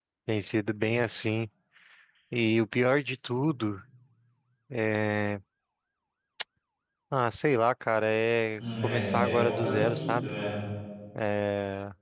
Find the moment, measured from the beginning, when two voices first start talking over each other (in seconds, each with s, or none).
8.6 s